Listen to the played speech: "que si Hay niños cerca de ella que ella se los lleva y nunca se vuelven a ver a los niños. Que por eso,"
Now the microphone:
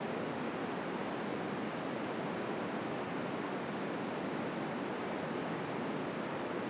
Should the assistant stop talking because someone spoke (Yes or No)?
No